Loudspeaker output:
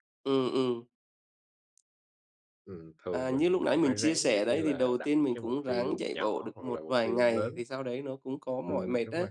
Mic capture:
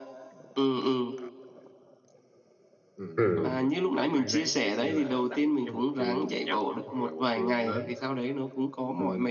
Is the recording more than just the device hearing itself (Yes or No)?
Yes